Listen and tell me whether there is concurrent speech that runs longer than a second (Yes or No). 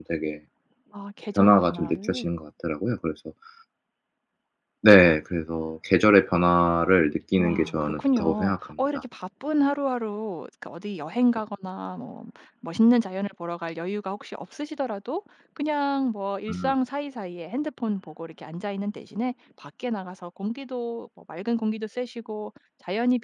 Yes